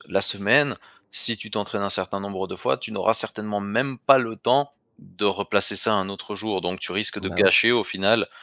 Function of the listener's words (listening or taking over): listening